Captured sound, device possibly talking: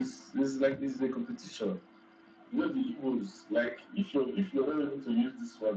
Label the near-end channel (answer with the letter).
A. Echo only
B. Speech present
A